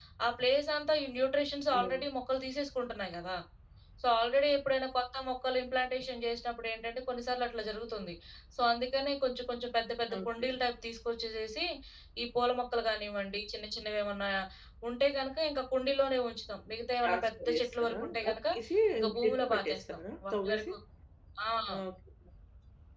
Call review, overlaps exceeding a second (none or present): present